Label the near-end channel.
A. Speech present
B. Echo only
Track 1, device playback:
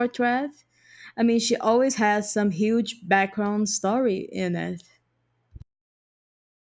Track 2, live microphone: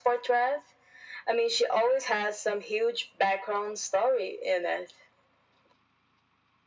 B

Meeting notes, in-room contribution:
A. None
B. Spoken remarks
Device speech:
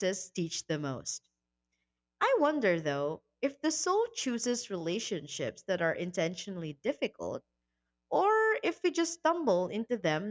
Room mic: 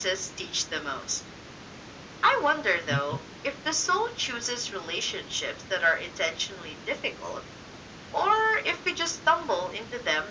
B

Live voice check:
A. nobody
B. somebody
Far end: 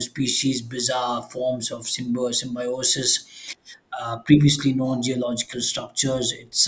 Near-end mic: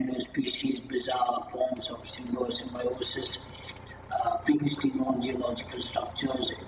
A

